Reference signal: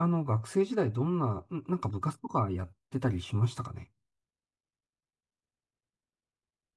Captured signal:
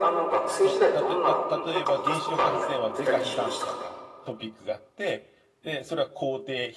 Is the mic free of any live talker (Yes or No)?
No